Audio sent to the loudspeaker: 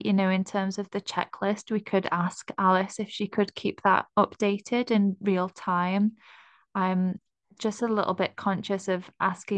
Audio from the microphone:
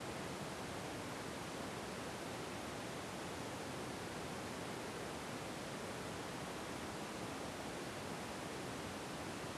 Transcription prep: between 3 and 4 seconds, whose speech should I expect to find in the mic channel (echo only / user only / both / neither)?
neither